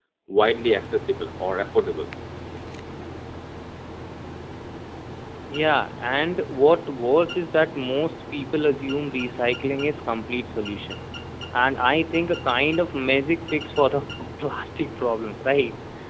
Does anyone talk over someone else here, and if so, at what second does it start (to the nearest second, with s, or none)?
none